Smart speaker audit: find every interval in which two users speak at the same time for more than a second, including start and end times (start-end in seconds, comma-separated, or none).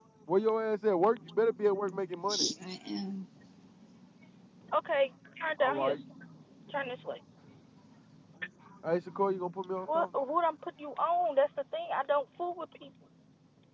none